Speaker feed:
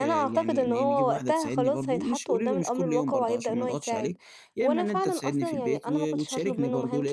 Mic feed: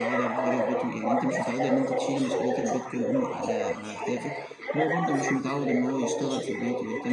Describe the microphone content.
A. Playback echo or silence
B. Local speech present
B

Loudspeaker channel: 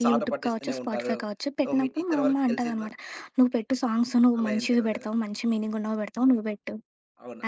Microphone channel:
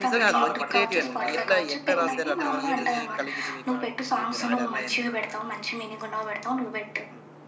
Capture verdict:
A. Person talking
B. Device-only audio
A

